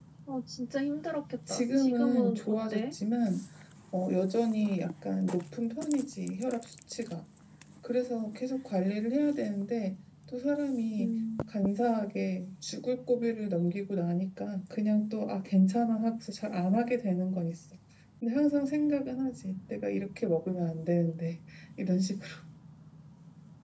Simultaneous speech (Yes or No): Yes